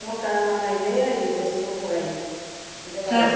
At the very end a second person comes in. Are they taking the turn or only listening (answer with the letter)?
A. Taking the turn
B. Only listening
A